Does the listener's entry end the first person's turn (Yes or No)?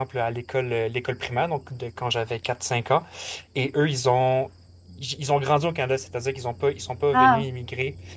No